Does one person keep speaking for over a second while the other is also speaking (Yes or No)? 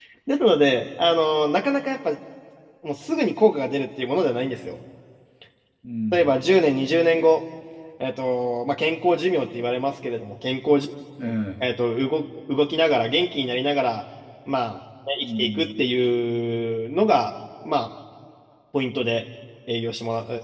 No